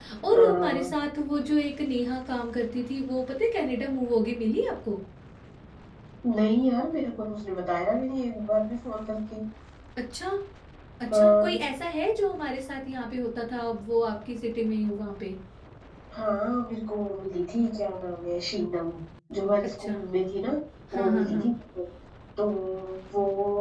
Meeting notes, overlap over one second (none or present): none